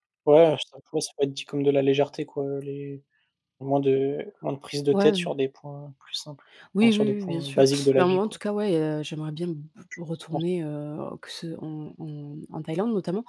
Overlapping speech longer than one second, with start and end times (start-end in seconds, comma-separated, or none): 6.8-8.2